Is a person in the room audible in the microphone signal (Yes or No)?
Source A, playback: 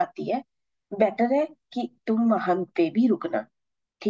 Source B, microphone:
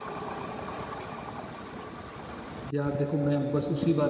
Yes